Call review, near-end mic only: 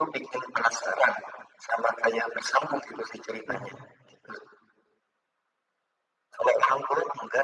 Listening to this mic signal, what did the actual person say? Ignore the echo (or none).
Oke.